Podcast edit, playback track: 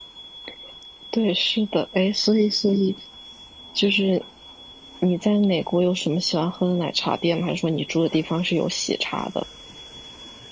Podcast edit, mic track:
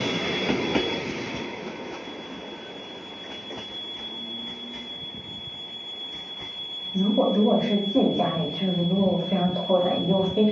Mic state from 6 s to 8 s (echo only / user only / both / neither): user only